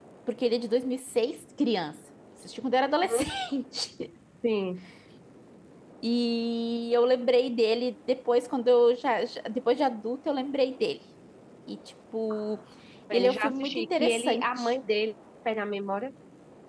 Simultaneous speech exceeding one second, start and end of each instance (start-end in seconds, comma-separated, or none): 13.1-14.7